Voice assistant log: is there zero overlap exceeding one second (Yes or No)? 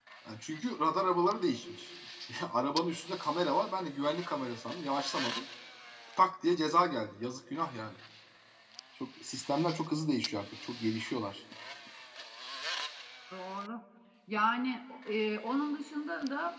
Yes